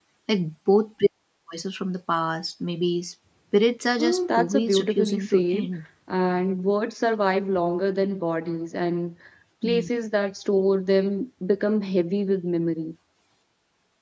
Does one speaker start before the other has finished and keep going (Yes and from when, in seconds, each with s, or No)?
Yes, from 4.0 s